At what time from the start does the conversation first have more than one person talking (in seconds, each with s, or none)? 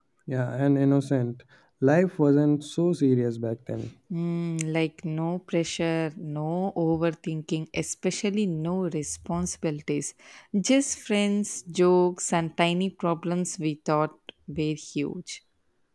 none